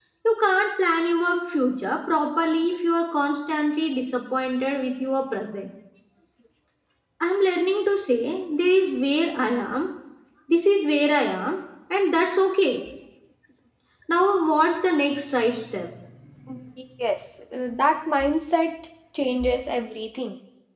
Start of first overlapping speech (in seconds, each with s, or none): none